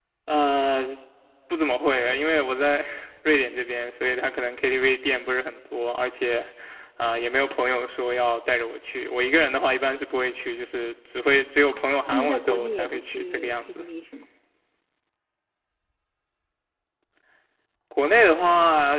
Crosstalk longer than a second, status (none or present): present